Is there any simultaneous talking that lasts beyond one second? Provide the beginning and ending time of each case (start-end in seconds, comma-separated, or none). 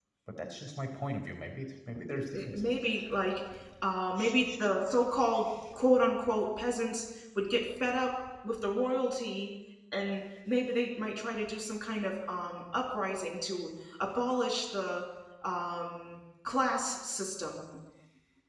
none